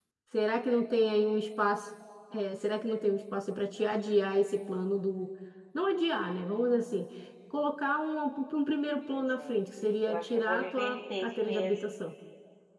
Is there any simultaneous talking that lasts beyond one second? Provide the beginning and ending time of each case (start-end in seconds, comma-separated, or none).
10.1-11.8